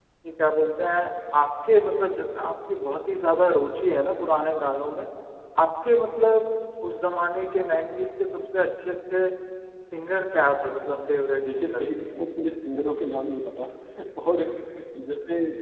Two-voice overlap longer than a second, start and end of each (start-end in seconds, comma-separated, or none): none